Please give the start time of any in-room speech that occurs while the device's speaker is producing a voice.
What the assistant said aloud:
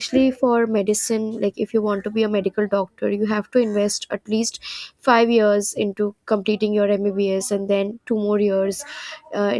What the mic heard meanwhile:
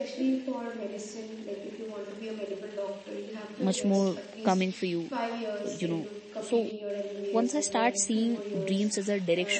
3.6 s

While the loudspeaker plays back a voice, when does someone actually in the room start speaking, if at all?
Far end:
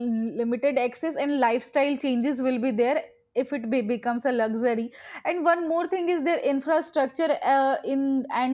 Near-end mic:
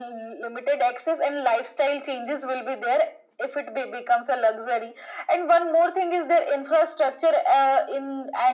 none

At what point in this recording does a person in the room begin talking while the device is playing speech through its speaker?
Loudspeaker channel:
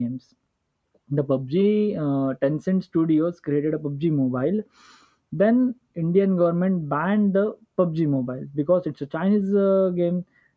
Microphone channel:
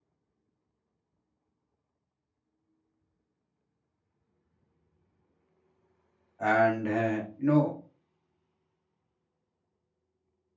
6.4 s

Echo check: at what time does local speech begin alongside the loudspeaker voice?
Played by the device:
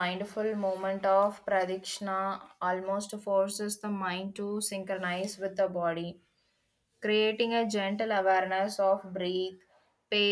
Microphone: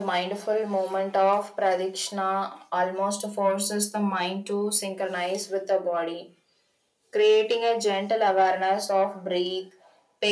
none

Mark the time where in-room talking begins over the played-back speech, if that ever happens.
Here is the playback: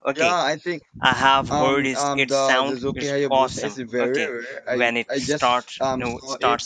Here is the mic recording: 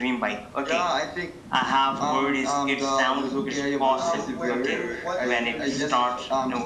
3.8 s

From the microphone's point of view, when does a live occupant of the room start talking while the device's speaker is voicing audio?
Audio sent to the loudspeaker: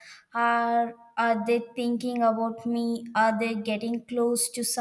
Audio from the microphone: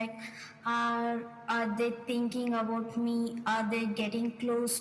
none

